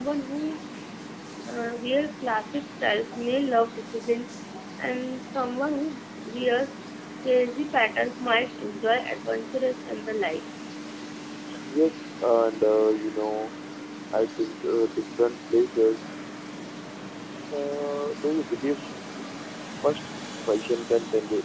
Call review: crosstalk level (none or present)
none